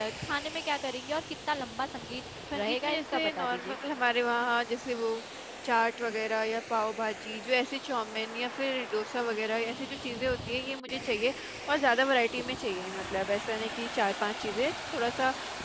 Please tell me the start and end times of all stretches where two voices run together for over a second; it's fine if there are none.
2.5-3.8

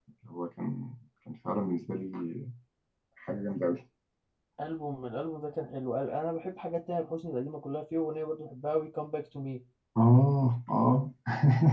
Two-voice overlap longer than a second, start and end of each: none

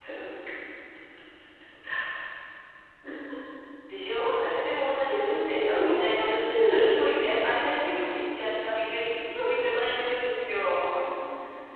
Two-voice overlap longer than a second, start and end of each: 4.9-6.9

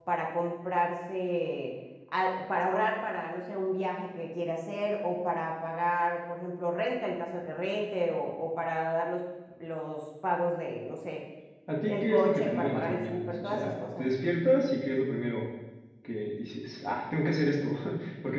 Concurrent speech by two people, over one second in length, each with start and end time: 11.9-14.1

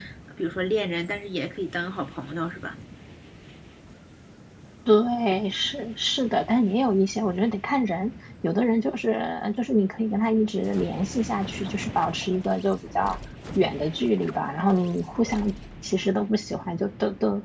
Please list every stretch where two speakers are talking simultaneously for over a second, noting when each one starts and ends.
none

